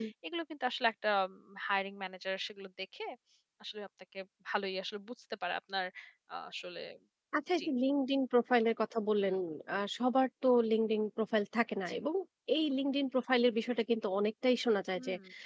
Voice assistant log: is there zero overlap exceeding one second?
Yes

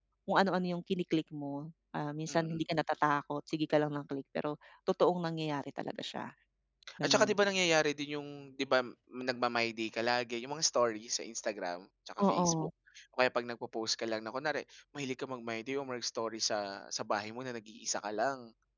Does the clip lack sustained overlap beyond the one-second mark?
Yes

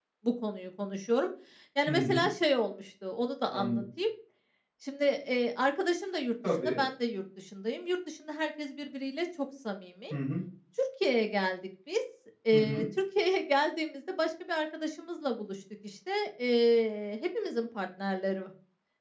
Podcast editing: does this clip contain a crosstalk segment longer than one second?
No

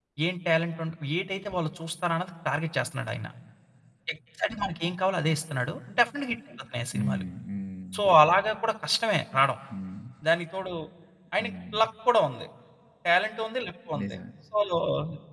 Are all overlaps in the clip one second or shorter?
Yes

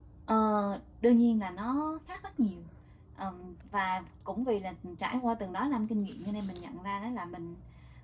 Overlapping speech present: No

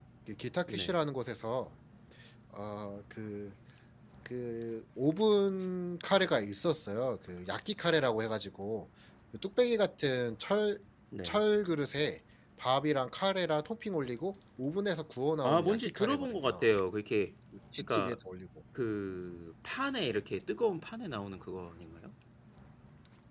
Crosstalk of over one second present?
Yes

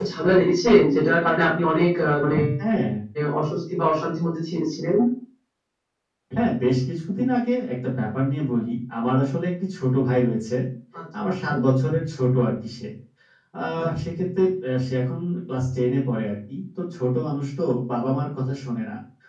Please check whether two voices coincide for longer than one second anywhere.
No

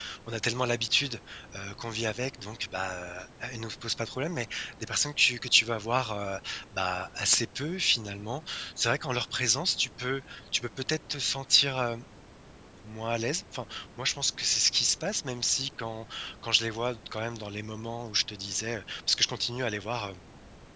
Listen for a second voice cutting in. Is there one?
No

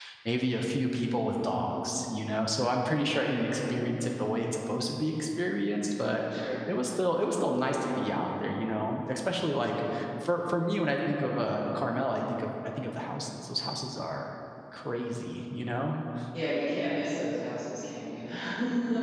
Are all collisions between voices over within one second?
Yes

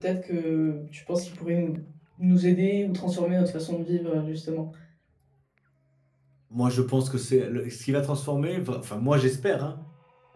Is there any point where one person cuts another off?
No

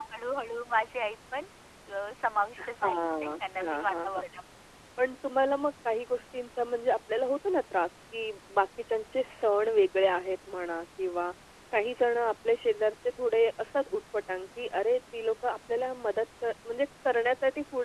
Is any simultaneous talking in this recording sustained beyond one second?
Yes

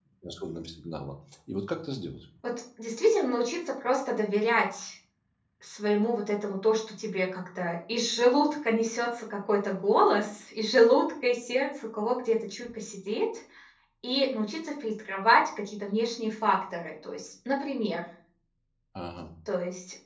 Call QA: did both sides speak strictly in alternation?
Yes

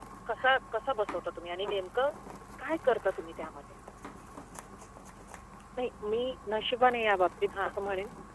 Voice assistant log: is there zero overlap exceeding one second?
Yes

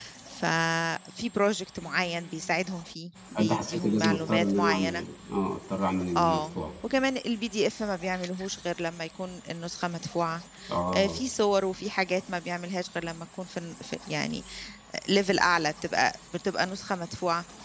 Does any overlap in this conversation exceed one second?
Yes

